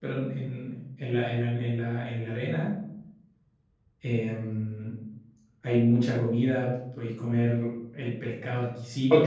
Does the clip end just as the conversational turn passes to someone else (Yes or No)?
Yes